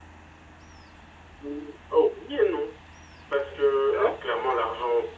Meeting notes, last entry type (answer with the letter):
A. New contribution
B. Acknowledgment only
B